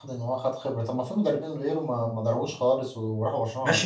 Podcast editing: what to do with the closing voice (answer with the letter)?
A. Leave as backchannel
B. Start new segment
B